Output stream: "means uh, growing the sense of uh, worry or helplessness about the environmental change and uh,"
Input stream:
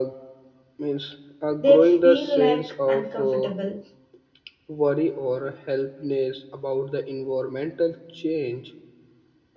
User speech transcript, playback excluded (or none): they feel like uncomfortable,